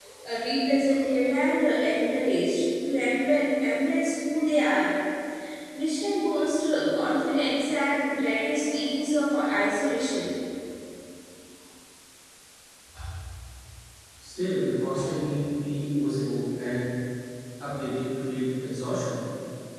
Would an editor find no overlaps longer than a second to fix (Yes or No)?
Yes